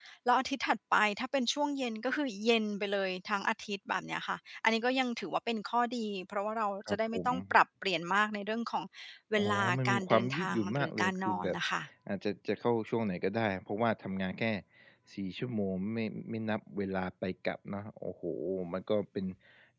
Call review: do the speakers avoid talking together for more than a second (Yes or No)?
No